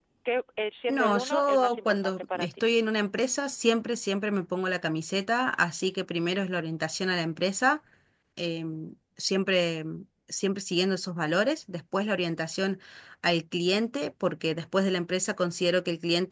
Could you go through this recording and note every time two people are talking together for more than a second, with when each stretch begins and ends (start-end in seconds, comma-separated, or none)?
0.9-2.6